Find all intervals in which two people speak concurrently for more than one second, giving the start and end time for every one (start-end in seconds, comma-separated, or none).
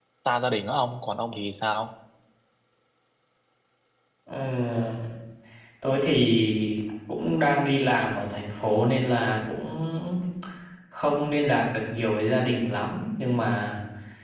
none